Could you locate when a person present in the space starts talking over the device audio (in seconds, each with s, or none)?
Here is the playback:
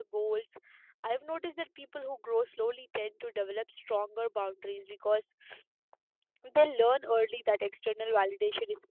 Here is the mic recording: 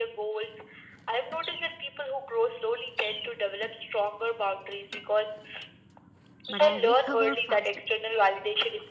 6.5 s